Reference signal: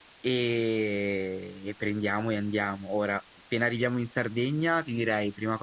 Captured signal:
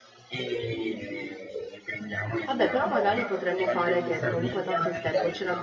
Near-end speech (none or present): present